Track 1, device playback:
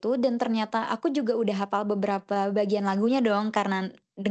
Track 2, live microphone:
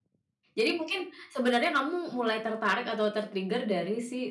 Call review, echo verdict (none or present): none